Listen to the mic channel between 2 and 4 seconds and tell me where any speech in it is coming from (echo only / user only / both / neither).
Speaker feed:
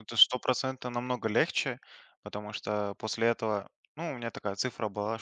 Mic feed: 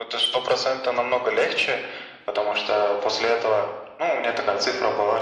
echo only